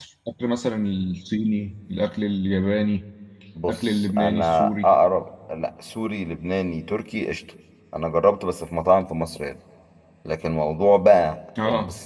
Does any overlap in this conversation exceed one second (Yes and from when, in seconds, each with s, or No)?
Yes, from 3.7 s